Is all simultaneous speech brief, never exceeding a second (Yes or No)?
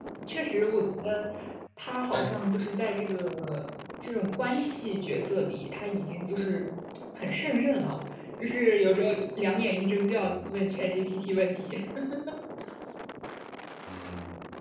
Yes